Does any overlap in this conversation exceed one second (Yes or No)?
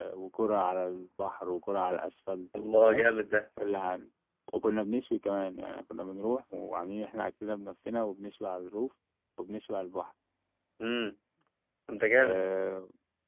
No